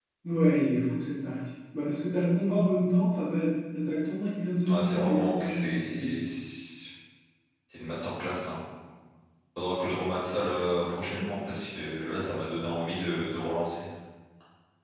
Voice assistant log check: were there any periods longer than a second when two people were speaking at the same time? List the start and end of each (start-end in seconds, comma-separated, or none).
4.7-6.1